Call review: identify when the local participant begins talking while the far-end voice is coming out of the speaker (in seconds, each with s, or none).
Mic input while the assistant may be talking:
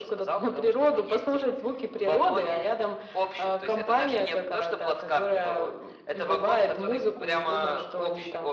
none